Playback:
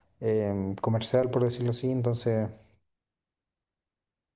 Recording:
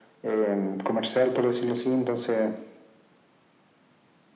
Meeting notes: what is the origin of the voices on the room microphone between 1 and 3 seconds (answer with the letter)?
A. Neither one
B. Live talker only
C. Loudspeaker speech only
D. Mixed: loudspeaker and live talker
C